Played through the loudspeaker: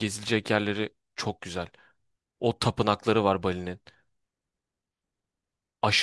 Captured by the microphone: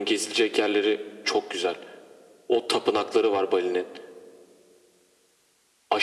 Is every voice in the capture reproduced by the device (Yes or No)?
Yes